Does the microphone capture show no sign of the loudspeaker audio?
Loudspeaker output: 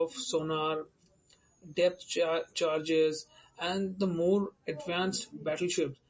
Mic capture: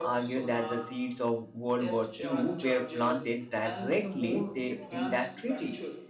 No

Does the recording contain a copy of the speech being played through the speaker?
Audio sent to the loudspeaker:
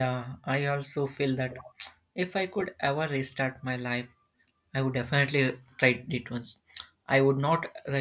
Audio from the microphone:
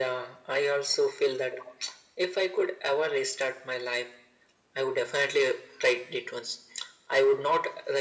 Yes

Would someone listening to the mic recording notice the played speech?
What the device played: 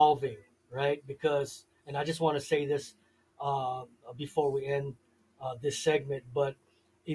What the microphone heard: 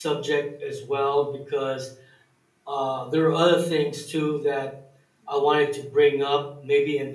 No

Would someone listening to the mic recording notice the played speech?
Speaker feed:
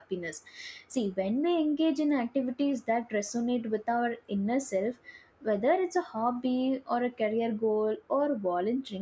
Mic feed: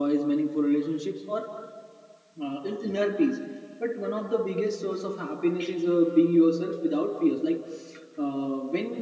No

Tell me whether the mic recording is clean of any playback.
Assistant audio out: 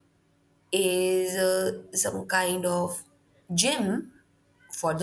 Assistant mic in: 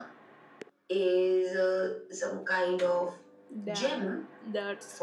No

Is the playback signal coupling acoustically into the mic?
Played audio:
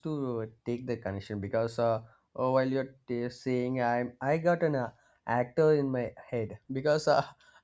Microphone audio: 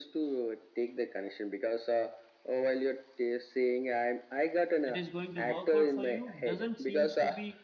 Yes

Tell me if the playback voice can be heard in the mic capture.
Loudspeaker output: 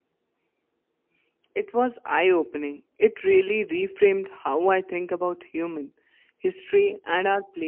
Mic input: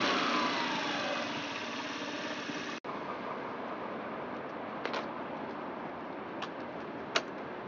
No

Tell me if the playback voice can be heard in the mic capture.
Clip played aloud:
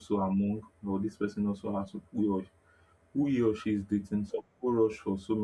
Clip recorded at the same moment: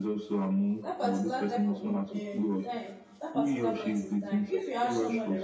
Yes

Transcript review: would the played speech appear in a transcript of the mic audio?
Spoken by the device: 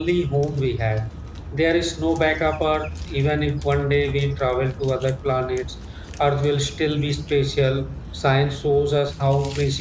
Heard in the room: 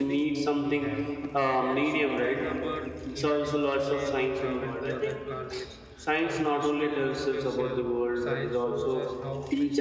Yes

